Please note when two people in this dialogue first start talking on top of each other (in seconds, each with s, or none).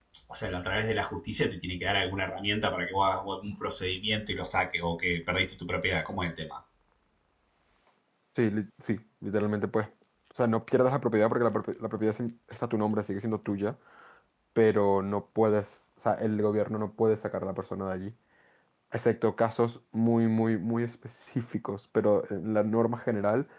none